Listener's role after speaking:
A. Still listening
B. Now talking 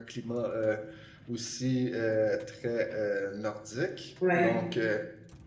A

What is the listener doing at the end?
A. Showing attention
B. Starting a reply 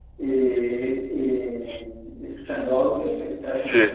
A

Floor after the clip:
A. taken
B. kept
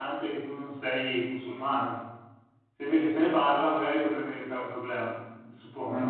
A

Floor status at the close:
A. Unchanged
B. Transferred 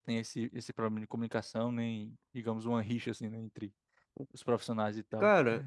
B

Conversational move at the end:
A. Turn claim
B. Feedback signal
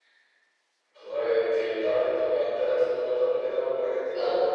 A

